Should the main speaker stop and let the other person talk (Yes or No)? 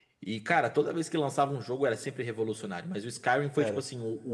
No